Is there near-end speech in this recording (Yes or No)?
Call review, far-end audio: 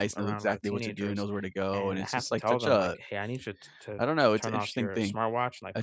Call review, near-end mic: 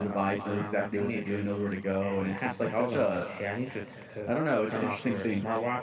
No